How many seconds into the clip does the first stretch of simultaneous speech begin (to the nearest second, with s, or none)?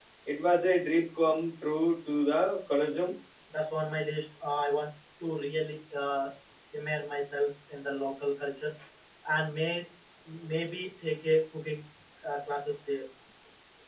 none